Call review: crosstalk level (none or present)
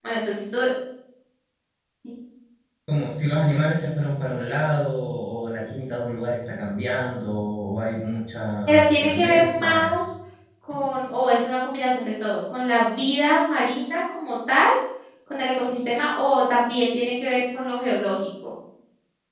present